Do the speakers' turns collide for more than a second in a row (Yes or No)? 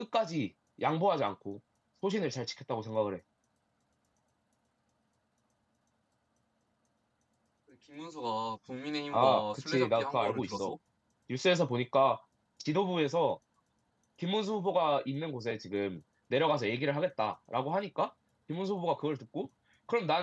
Yes